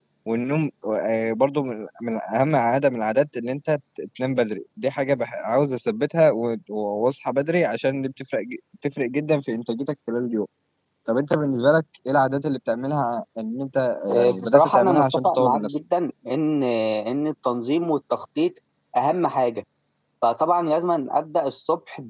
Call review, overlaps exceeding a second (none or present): present